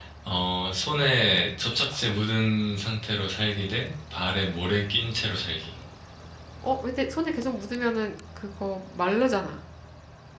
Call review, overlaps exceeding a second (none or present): none